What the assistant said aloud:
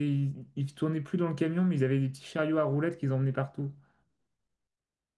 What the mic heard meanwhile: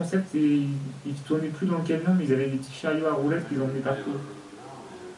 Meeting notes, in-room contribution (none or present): present